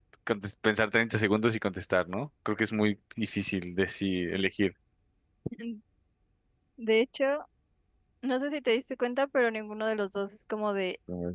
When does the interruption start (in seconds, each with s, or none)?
none